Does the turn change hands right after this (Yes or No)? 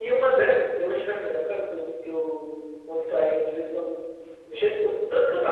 No